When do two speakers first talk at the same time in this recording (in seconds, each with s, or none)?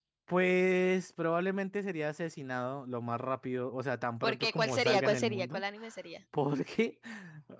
4.2 s